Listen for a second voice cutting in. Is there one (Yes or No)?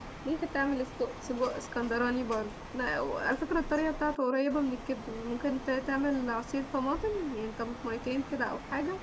No